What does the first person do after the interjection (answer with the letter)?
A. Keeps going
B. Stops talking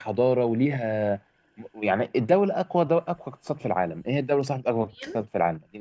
A